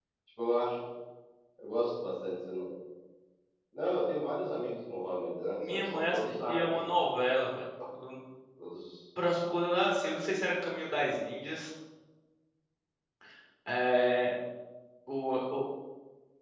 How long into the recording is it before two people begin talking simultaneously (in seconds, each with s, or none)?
5.6 s